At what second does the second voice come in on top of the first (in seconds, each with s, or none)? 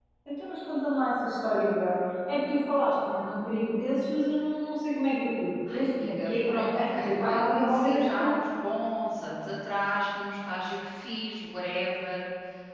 5.7 s